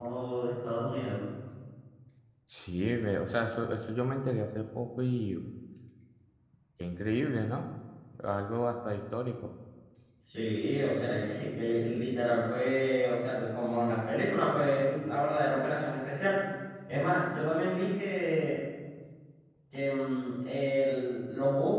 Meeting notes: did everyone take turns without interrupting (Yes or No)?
Yes